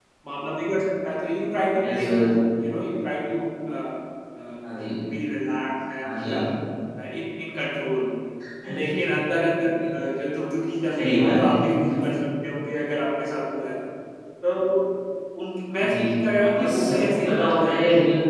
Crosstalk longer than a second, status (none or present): present